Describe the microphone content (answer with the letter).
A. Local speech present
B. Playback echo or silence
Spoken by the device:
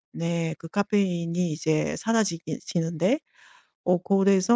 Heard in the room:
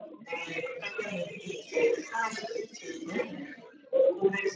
B